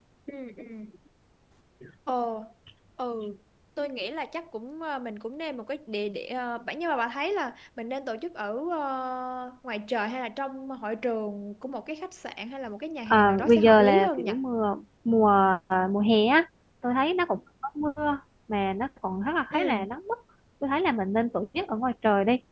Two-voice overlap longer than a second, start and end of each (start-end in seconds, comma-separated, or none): 13.1-14.3